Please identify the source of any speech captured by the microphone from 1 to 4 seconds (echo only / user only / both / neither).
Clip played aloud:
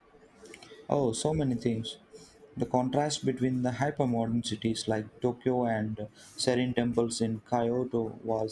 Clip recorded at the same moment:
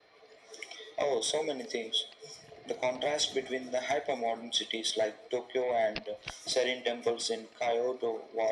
echo only